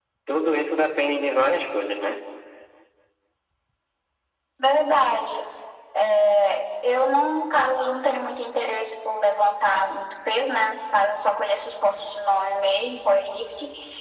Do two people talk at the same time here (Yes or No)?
No